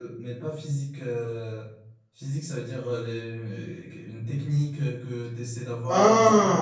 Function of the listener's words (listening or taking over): listening